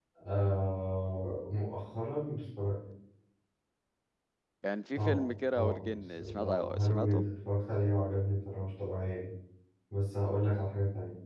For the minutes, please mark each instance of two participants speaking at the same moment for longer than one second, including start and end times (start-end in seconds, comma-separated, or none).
5.0-7.2